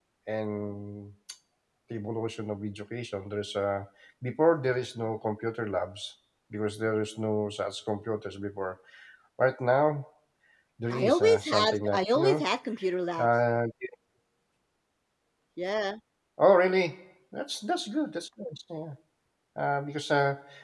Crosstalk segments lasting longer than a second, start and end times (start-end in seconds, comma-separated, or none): 10.9-12.5